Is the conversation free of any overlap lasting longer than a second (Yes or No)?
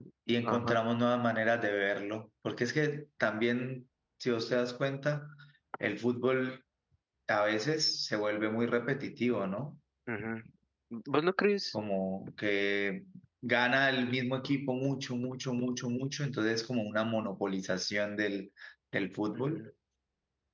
Yes